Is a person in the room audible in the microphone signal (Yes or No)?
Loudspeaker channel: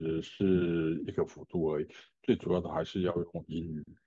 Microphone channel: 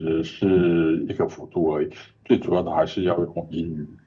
No